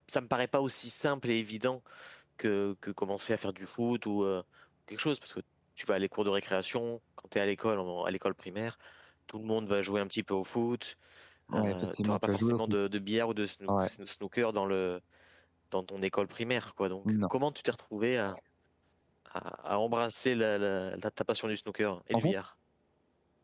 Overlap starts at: 11.6 s

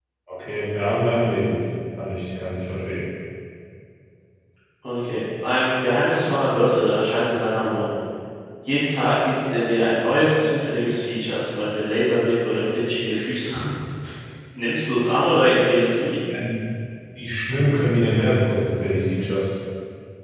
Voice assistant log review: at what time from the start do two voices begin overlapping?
none

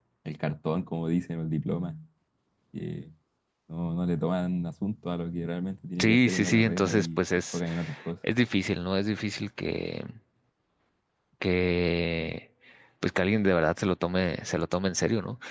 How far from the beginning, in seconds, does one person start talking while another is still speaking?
6.0 s

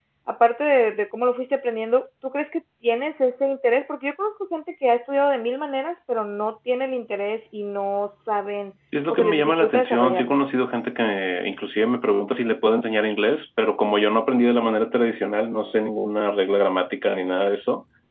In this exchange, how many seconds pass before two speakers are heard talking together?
8.9 s

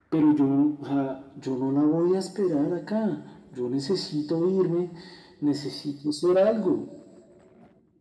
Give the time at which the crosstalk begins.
none

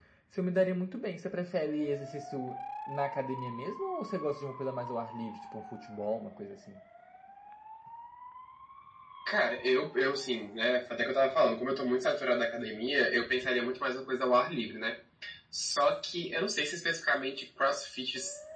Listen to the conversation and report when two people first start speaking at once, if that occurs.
none

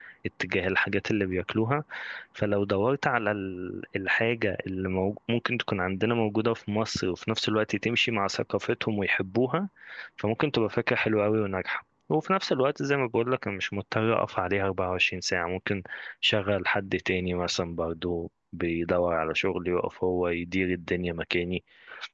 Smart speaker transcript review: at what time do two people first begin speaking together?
none

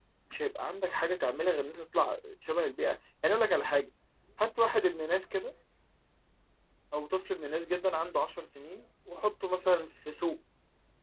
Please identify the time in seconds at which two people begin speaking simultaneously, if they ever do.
none

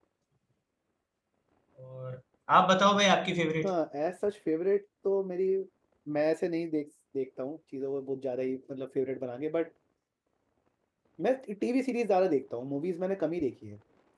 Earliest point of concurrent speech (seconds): none

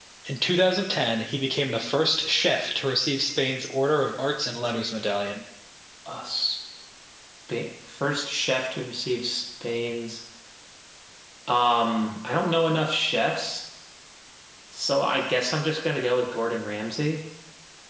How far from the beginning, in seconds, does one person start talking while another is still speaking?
none

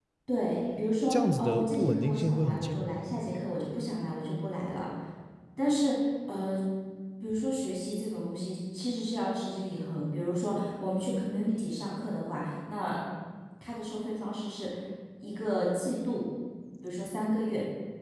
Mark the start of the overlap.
1.1 s

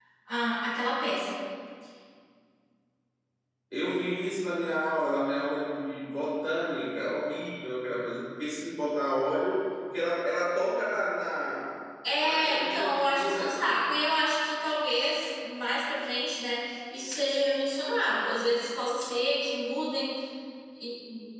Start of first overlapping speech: 12.2 s

